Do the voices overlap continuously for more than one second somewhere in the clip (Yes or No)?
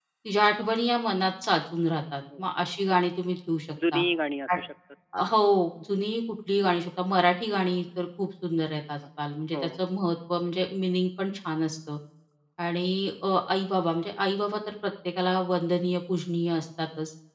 No